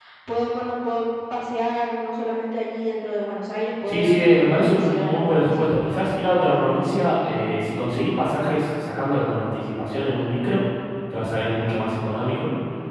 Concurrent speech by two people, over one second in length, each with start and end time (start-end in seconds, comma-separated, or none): 3.9-5.7